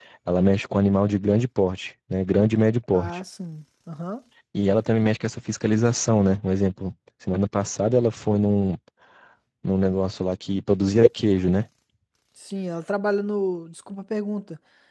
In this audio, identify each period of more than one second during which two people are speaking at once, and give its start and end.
none

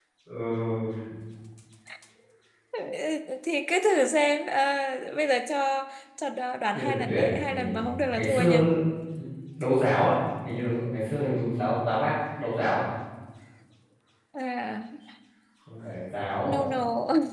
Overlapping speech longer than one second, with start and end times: 6.7-8.6

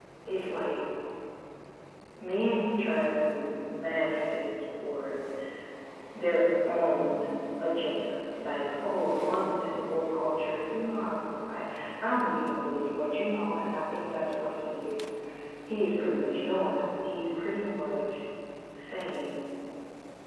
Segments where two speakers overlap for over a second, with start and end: none

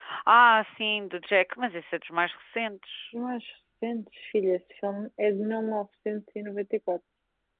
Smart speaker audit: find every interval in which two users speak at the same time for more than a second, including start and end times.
none

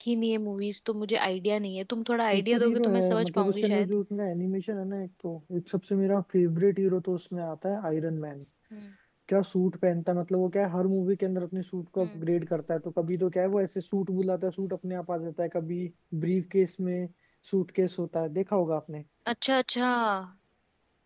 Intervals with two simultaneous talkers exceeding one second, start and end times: 2.3-3.9

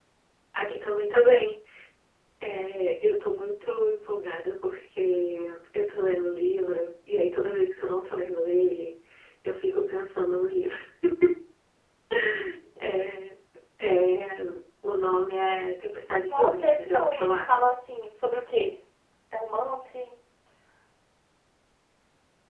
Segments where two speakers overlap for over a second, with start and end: 16.3-17.5

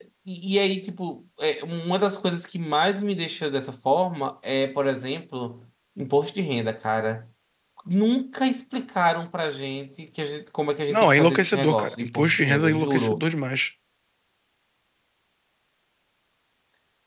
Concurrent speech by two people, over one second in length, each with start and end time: 10.9-13.2

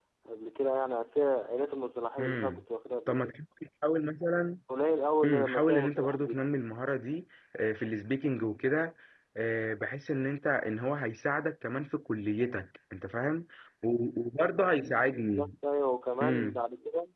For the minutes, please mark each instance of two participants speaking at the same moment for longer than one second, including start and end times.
5.2-6.5

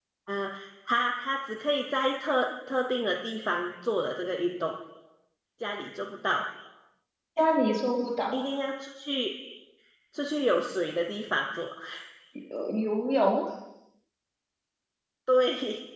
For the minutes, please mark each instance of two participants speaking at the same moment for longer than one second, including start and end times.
none

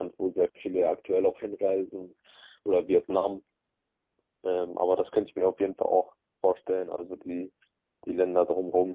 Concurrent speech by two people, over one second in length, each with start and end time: none

